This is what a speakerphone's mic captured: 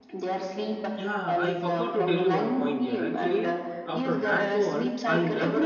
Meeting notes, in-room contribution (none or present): present